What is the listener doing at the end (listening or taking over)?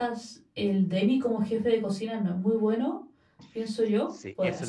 taking over